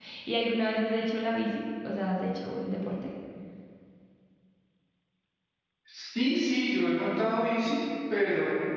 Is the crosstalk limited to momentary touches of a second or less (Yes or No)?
Yes